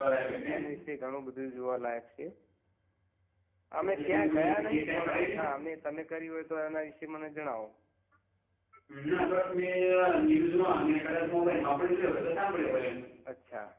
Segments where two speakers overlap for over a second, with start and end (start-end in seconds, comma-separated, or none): 3.9-5.4